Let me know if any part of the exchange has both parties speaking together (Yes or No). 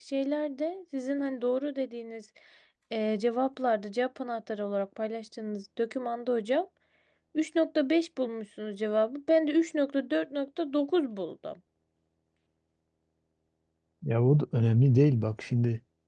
No